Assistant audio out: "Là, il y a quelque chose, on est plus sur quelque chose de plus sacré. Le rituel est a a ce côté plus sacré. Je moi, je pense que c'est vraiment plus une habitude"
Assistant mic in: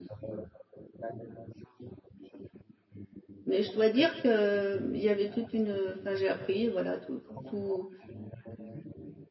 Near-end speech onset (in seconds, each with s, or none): 3.4 s